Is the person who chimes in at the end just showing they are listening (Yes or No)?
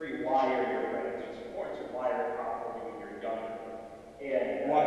No